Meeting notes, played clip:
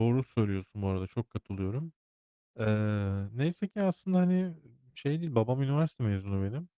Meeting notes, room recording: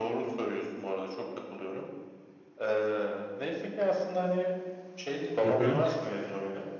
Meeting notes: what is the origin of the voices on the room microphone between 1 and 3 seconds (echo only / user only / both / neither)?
echo only